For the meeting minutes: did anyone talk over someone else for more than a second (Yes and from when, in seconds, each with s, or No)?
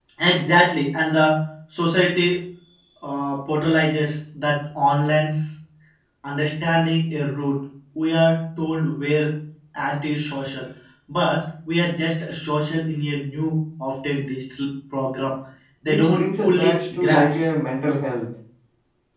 Yes, from 15.8 s